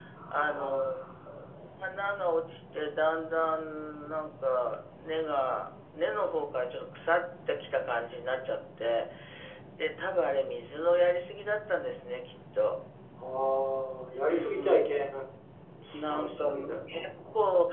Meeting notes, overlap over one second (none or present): present